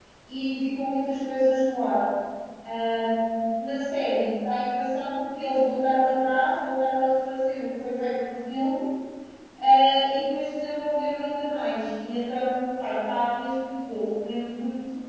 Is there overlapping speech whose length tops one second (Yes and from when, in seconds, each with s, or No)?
No